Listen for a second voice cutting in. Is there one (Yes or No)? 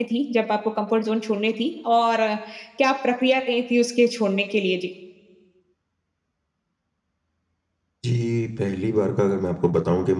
No